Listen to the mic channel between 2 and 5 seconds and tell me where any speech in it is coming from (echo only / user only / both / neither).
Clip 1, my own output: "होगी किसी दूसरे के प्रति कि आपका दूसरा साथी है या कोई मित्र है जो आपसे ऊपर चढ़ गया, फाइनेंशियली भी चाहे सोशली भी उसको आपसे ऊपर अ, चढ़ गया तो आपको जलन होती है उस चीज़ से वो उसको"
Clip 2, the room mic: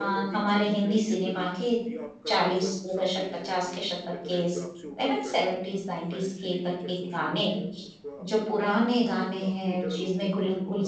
both